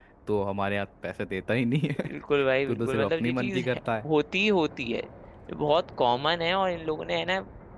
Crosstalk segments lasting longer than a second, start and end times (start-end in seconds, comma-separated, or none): 2.7-4.0